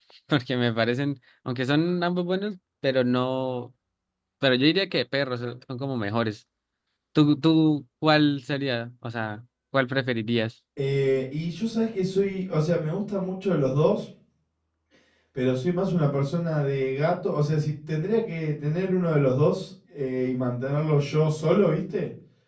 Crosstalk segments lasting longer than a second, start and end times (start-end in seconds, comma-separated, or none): none